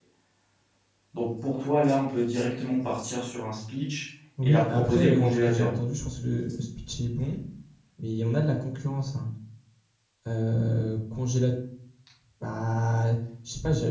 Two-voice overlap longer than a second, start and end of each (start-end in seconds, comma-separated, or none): 4.4-5.7